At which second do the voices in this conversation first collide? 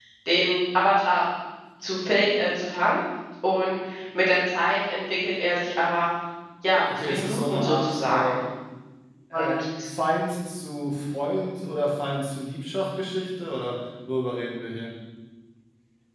7.0 s

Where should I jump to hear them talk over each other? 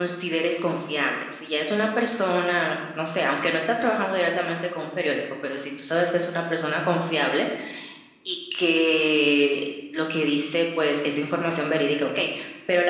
none

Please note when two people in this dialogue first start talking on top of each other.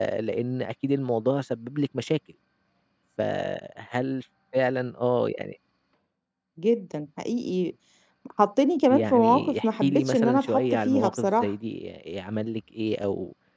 8.9 s

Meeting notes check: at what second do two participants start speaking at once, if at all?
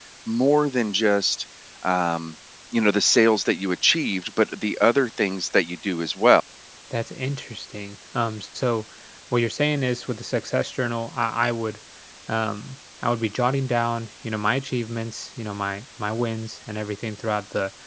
none

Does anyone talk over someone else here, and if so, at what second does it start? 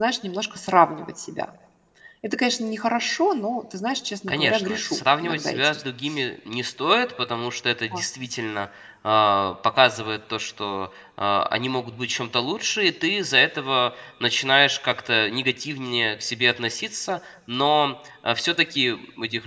4.3 s

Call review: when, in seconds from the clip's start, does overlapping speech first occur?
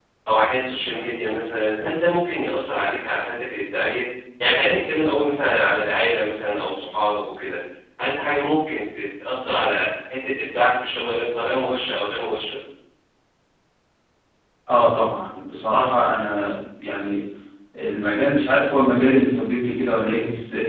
none

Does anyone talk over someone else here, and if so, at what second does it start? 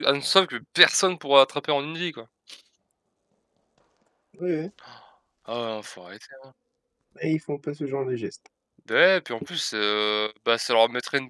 none

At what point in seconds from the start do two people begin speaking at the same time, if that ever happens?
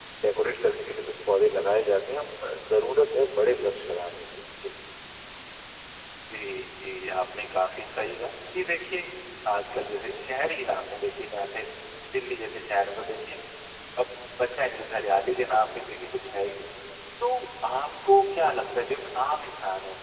none

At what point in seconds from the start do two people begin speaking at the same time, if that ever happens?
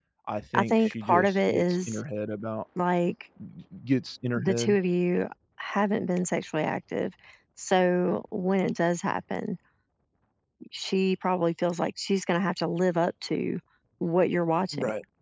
0.6 s

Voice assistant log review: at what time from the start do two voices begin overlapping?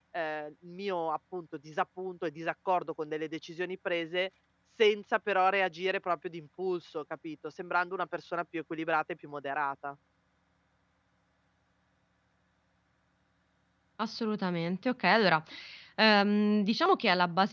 none

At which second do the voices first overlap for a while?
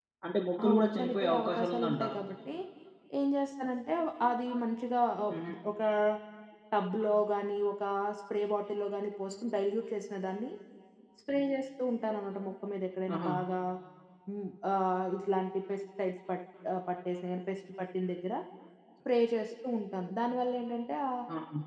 0.7 s

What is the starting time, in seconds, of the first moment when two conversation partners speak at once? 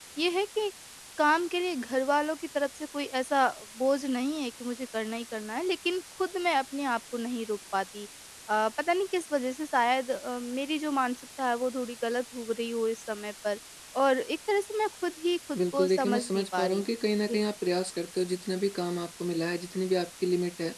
15.5 s

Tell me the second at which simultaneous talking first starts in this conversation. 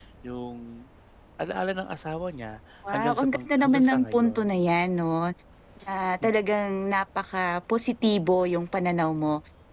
2.8 s

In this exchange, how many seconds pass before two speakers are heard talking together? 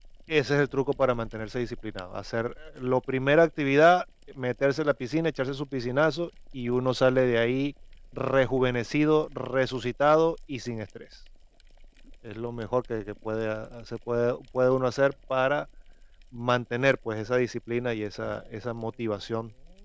none

